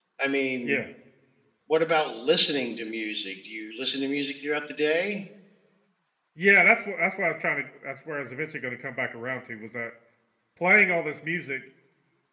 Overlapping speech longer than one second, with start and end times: none

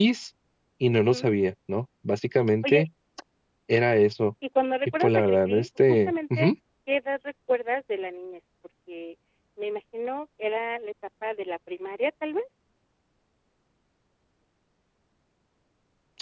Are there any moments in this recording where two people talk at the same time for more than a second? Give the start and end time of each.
5.0-6.5

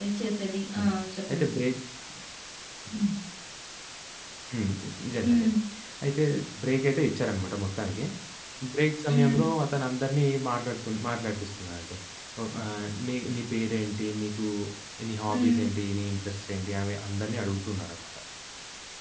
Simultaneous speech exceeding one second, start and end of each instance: none

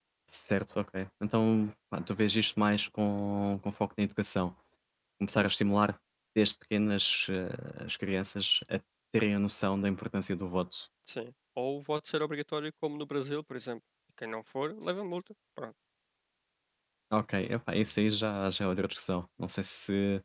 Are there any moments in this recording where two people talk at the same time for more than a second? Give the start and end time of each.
none

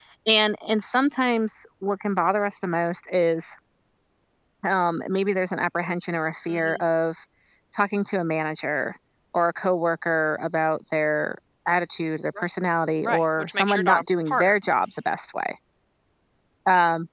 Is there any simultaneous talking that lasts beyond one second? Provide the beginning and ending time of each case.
13.0-14.5

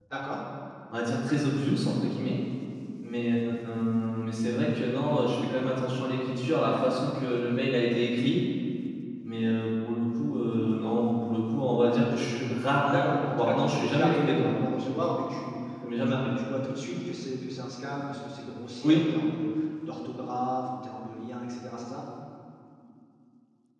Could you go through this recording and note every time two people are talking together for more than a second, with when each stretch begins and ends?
12.8-14.5

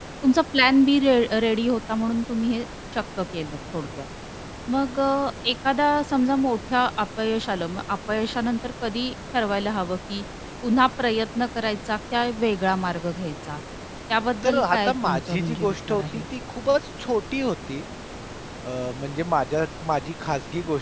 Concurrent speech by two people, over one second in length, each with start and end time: 14.4-16.2

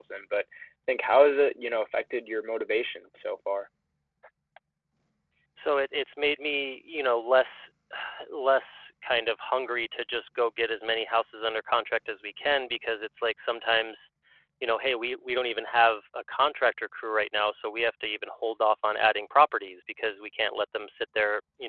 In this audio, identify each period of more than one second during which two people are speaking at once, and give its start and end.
none

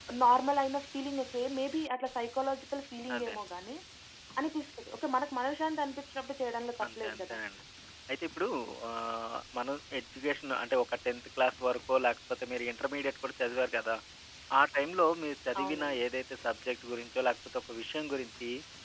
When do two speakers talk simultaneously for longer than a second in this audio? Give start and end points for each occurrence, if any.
none

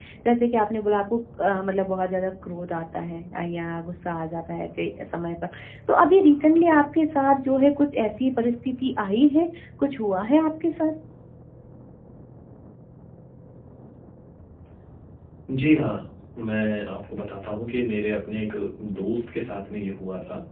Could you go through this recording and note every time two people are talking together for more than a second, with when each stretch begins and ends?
none

